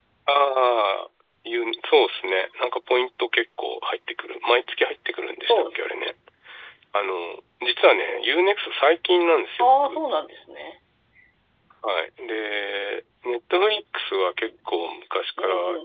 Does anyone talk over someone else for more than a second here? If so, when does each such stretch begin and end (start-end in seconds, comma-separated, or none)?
none